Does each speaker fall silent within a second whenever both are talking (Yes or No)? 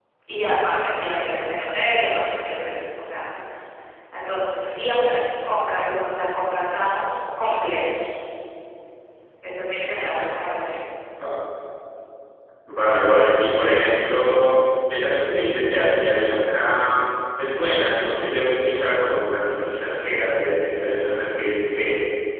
Yes